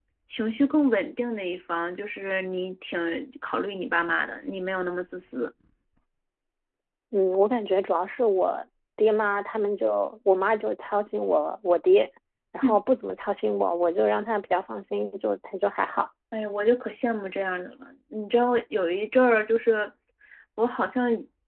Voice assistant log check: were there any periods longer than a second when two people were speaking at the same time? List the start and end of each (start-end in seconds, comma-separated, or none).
none